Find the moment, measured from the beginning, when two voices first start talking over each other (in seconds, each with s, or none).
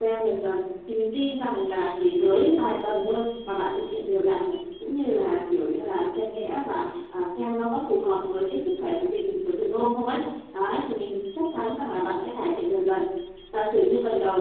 none